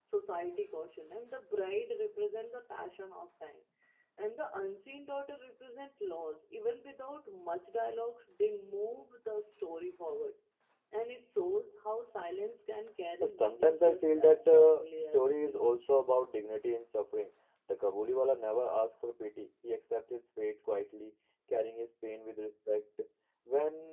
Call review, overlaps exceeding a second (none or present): present